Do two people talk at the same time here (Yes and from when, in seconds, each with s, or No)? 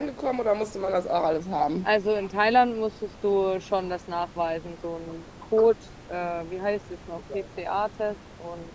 No